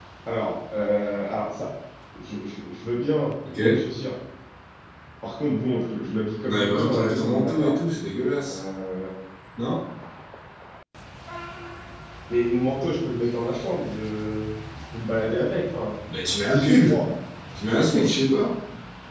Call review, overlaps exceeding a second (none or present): present